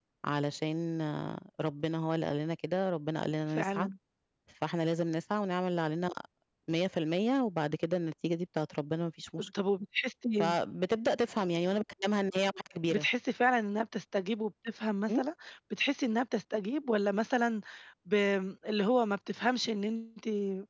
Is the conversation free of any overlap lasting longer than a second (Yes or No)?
Yes